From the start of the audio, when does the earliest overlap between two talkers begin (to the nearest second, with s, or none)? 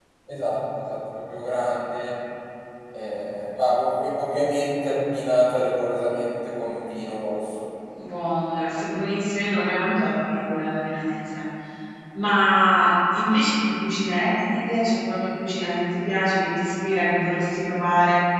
none